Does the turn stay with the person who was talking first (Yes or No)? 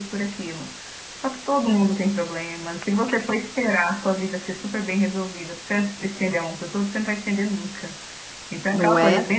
Yes